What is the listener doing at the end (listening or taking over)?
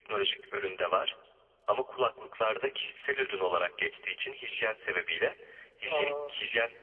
listening